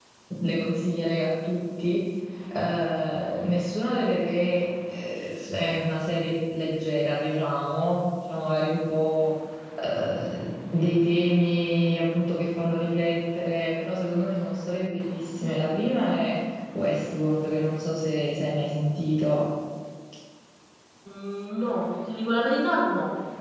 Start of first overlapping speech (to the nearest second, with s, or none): none